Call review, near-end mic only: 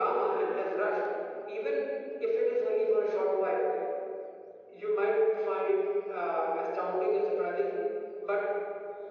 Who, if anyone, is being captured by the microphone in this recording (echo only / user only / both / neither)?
echo only